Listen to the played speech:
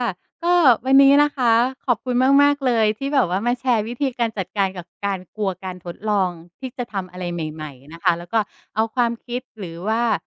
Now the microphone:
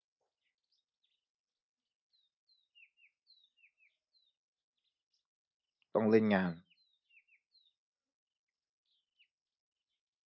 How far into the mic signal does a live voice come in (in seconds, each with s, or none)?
5.9 s